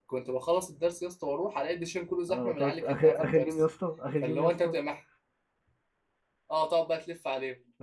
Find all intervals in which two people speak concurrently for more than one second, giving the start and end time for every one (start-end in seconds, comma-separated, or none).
2.3-3.6